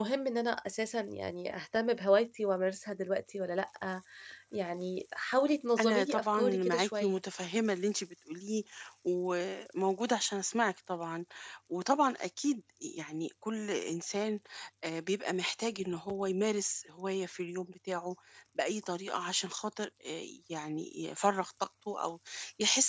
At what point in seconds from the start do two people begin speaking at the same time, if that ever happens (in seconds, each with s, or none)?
5.8 s